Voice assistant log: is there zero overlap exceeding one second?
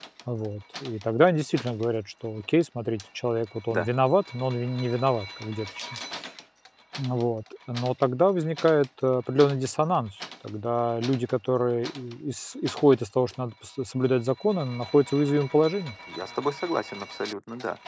Yes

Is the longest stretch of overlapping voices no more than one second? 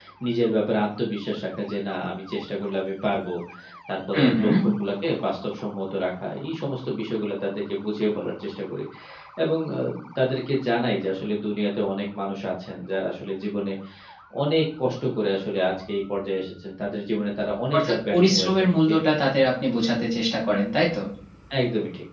No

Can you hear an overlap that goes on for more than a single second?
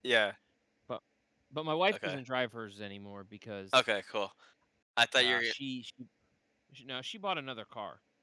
No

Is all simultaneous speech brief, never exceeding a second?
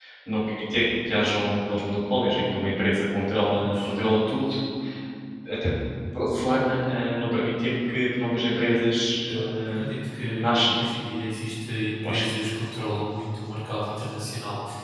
Yes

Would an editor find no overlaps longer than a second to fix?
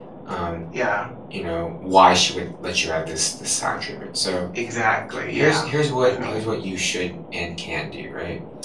Yes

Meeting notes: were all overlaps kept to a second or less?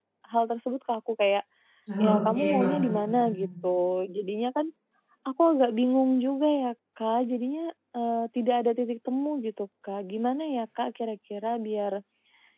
No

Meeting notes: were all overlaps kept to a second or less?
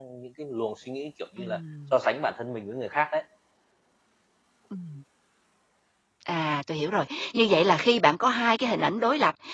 Yes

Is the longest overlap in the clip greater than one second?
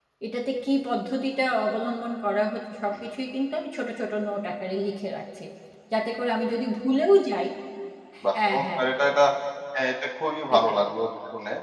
No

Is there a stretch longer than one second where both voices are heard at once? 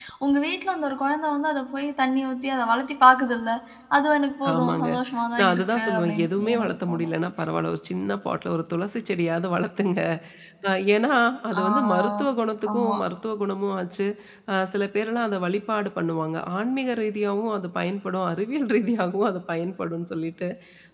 Yes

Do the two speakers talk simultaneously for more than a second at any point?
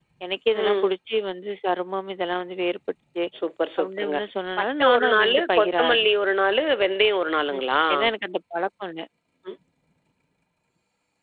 Yes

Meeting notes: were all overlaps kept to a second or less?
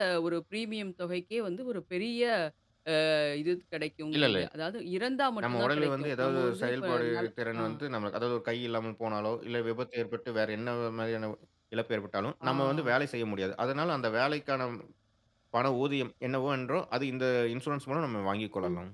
No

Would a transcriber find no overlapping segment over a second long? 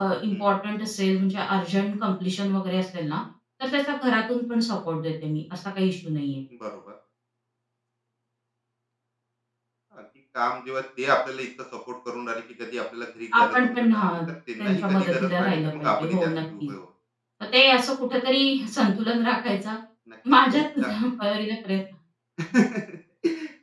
No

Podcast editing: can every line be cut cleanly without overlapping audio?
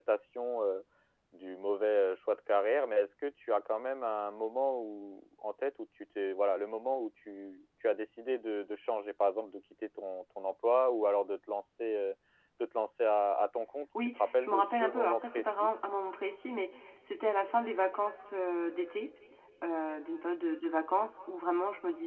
No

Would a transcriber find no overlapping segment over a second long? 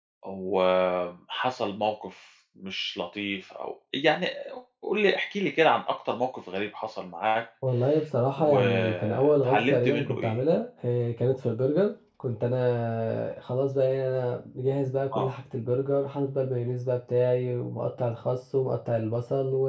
No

